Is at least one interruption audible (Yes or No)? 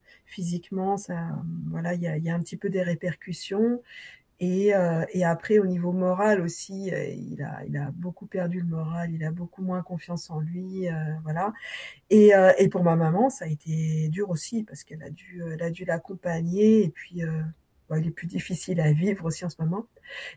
No